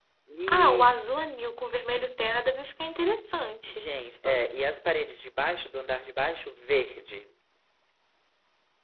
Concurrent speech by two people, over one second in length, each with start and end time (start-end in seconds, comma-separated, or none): none